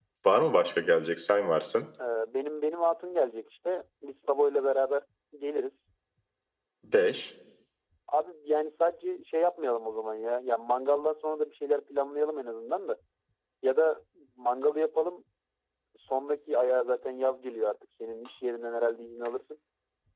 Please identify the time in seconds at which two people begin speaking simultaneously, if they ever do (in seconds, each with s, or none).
none